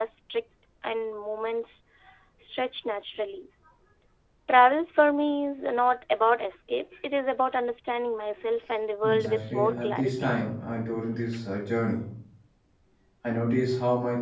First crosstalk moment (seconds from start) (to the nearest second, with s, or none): 9 s